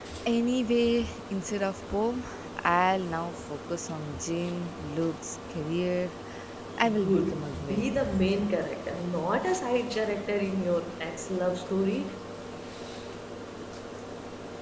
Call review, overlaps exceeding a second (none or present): present